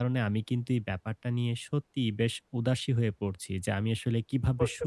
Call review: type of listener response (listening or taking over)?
listening